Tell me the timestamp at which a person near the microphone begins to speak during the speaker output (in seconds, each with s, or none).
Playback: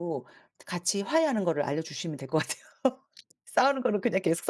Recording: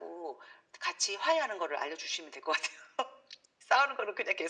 none